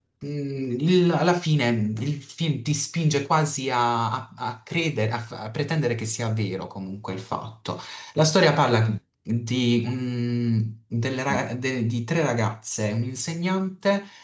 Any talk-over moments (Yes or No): No